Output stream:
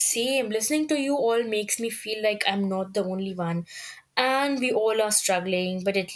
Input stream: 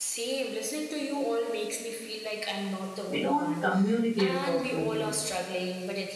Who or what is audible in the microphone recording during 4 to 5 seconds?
both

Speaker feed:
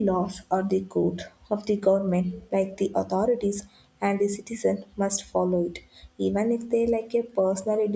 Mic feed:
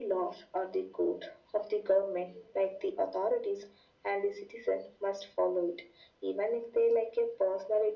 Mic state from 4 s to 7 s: echo only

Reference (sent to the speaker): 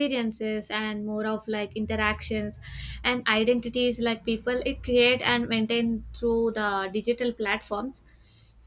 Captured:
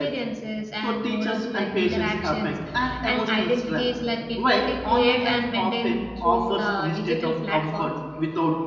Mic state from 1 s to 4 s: both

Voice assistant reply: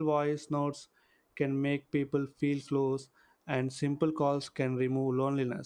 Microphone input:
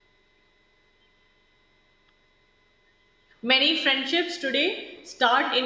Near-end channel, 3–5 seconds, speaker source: user only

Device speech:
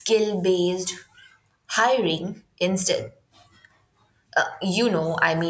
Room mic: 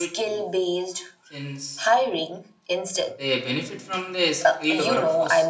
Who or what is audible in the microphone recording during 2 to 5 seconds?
both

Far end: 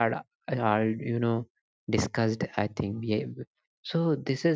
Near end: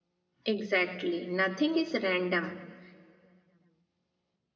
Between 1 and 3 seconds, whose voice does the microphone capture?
user only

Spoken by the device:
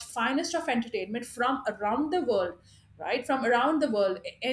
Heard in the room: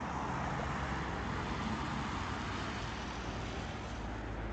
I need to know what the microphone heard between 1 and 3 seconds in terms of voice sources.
neither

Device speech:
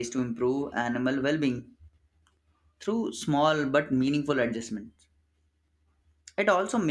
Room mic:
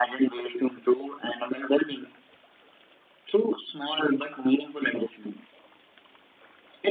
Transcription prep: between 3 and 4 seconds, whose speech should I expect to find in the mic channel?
echo only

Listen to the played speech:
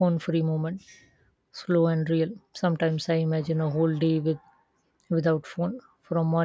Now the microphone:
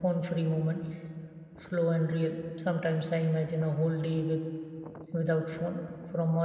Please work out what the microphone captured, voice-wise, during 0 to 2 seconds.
echo only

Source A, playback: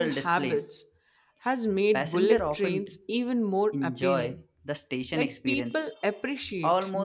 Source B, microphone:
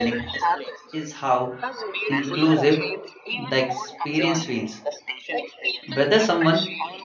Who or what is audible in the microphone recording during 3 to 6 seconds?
both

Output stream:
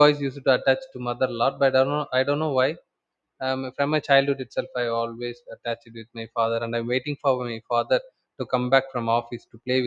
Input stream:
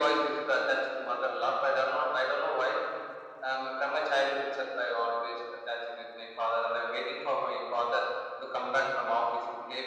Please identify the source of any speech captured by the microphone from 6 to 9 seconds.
echo only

